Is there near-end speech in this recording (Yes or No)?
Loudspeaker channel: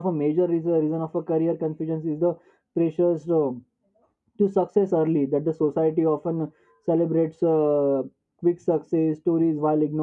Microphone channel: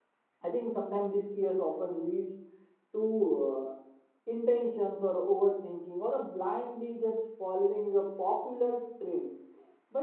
Yes